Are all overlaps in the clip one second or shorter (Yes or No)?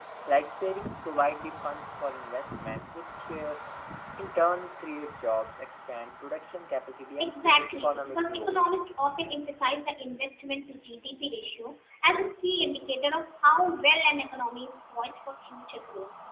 No